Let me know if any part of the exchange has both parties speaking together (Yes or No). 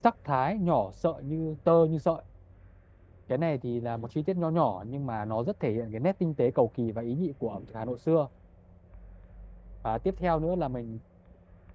No